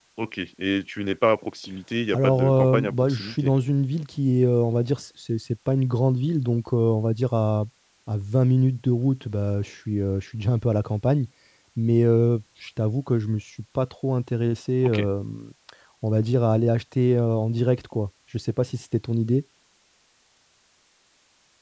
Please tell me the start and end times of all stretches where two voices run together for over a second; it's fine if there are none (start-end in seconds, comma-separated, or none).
2.1-3.5